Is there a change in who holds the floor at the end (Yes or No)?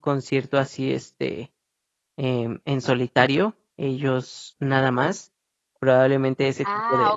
Yes